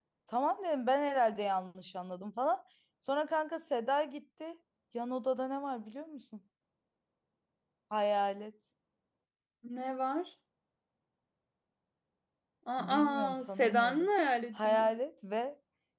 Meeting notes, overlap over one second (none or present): present